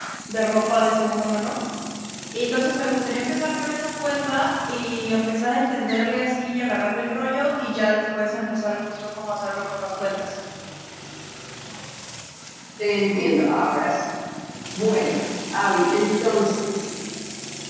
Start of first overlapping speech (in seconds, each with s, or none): none